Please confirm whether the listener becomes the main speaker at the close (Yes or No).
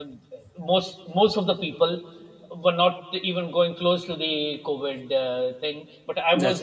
No